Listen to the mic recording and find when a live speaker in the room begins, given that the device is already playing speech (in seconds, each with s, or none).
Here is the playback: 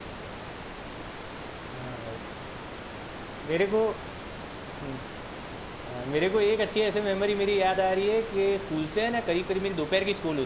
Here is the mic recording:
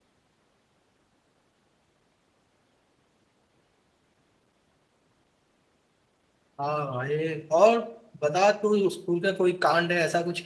6.6 s